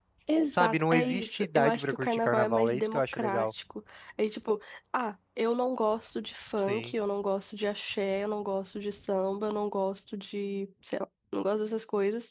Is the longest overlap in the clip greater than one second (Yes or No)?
Yes